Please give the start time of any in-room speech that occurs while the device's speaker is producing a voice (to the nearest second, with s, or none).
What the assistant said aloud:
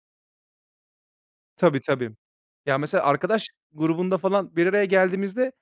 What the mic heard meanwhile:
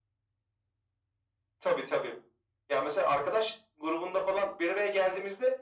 none